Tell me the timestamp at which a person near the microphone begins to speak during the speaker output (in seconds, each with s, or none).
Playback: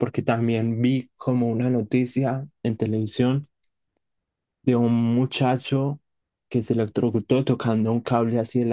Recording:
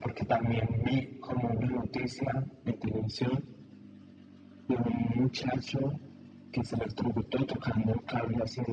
none